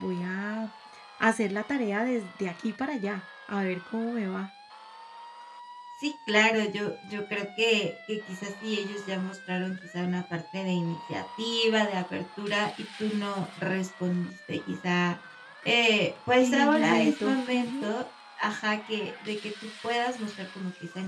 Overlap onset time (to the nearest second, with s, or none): 16 s